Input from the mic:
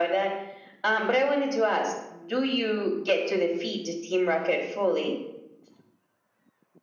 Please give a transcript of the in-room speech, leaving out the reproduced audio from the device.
none

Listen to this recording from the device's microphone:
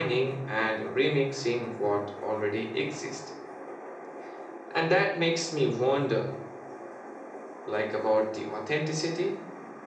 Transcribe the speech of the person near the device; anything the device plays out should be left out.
none

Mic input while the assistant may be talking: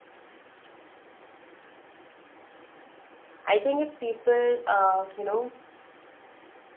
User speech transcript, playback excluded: I think if people, uh, you know,

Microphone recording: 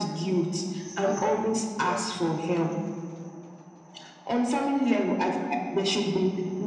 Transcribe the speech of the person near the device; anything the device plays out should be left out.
It starts by little habits and

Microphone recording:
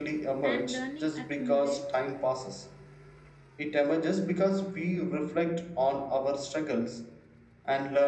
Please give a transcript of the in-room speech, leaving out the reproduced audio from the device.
and learning accumulate

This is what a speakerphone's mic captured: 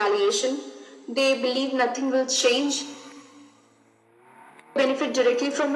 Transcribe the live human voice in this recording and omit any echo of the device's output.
none

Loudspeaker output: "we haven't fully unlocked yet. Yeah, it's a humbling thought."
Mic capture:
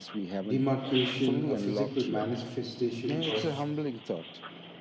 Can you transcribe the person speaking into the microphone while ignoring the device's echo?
demarcation, a physical manifestation of

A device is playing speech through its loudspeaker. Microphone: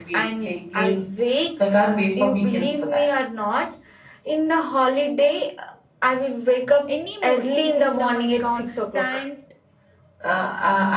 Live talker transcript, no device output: any mood. It is the my constant

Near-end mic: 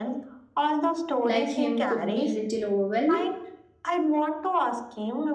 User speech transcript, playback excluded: like him could be little overwhelming?

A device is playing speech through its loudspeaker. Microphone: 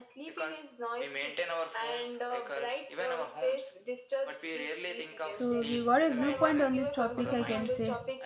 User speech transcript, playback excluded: So we got a viewpoint on this topic, I can say.

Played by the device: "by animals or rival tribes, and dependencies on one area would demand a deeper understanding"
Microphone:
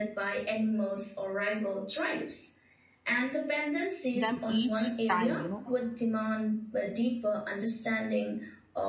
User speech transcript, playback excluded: them each time, you know,

